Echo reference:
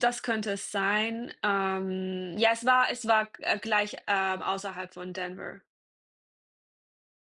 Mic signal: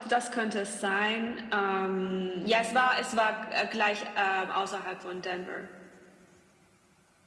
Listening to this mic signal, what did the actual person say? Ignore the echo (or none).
none